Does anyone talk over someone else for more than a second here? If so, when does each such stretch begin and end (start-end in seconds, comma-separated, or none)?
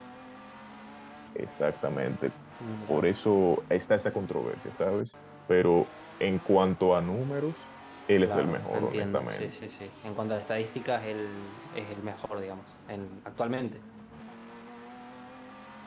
8.2-9.5